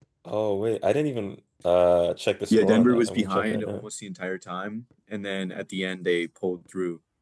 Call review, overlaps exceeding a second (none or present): present